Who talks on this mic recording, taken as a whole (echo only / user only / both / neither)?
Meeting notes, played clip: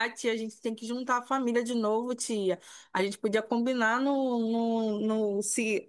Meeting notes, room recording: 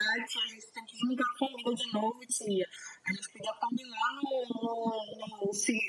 echo only